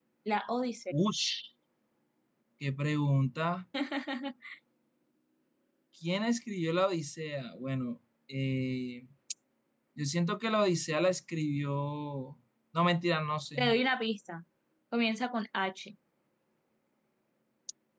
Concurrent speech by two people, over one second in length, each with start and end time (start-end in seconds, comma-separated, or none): none